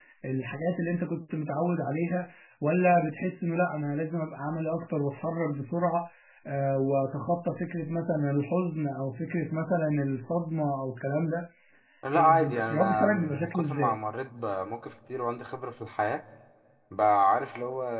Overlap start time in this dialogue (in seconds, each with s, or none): 12.1 s